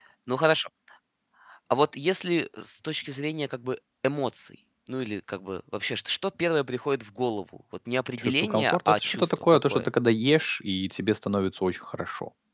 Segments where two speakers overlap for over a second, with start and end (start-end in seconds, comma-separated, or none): 8.2-9.9